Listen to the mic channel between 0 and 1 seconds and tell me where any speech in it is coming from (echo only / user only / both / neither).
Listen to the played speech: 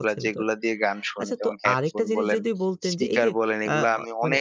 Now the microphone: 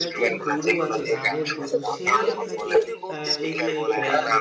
both